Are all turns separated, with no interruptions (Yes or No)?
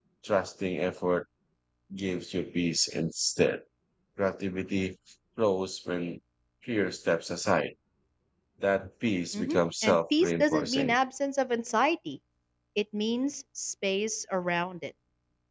No